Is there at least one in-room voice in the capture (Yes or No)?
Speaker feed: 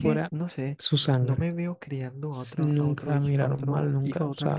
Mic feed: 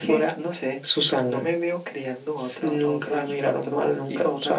No